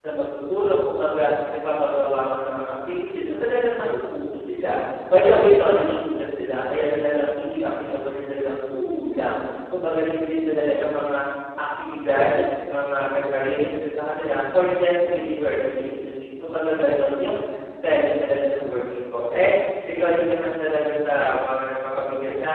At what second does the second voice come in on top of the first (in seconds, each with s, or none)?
none